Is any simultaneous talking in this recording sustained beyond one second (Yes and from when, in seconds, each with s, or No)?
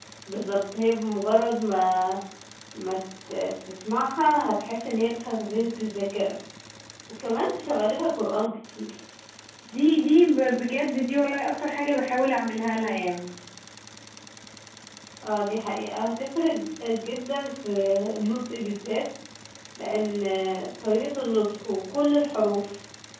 No